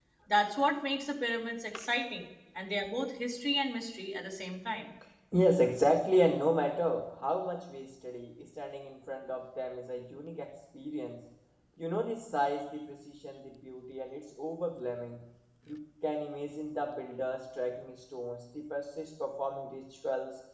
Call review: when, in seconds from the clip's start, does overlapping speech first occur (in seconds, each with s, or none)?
none